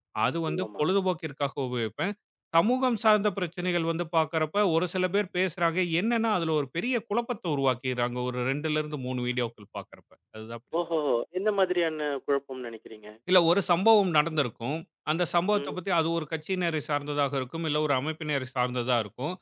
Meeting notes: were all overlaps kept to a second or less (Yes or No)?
Yes